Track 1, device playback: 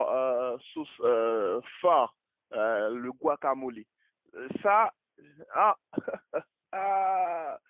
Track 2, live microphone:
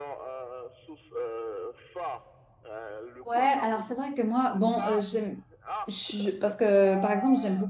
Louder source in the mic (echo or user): user